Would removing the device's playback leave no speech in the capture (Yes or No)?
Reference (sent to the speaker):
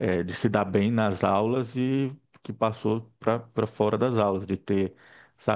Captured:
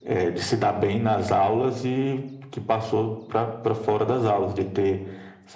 Yes